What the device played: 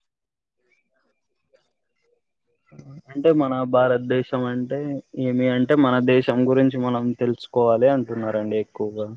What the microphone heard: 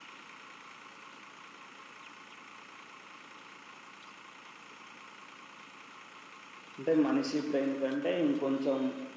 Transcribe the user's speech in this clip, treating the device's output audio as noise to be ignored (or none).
అంటే మనిషి బ్రెయిన్ కంటే ఇంకొంచెం